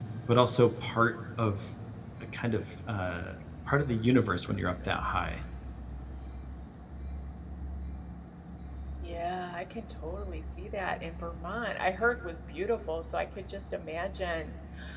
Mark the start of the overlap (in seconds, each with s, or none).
none